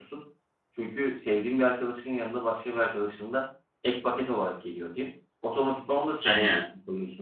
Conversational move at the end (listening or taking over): listening